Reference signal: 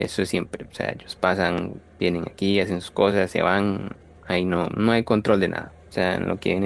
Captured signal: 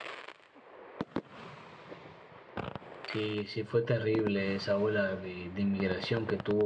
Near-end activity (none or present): present